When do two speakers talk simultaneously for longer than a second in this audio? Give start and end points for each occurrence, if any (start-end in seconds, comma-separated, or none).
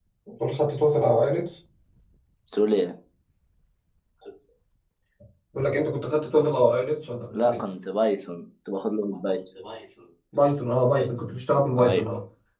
none